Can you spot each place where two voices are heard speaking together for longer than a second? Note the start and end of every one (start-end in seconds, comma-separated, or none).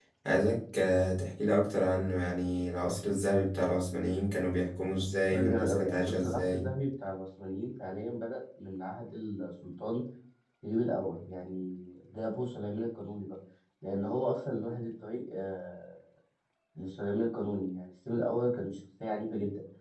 5.3-6.7